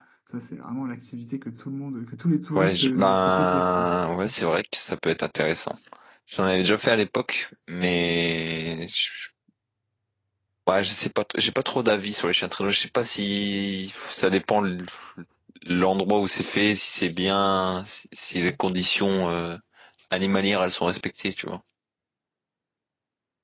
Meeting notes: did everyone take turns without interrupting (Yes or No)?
No